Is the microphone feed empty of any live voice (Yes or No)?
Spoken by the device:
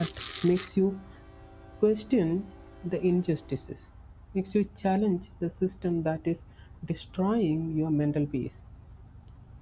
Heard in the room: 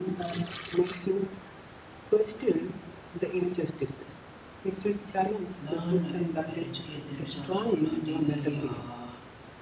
No